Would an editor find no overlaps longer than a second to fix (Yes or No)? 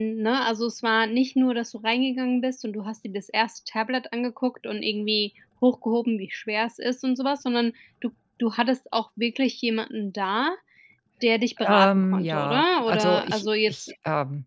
No